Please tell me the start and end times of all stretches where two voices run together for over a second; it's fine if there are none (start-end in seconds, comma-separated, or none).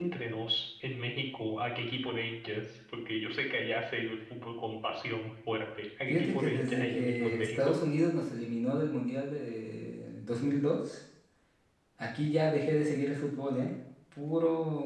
6.1-7.8